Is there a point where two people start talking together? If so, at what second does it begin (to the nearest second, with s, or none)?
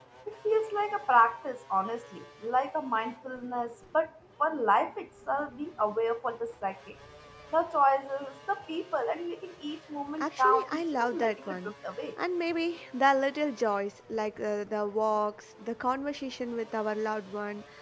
10 s